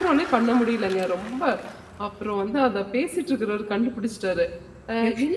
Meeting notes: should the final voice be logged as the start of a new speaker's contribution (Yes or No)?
No